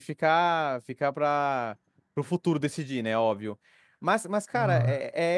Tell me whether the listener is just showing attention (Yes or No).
Yes